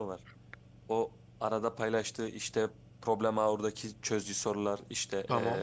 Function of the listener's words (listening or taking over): listening